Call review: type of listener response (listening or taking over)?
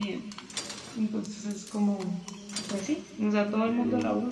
listening